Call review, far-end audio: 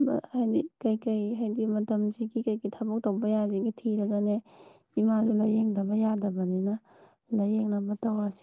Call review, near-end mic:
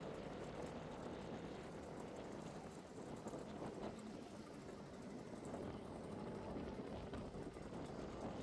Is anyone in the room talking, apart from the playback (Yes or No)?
No